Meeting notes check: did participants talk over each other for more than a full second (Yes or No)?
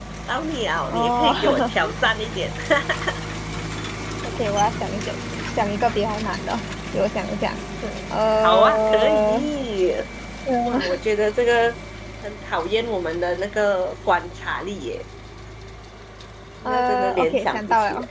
Yes